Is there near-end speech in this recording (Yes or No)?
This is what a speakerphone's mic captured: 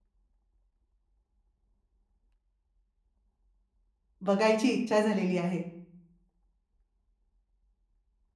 Yes